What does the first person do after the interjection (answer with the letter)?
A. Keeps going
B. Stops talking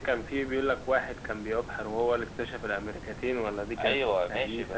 B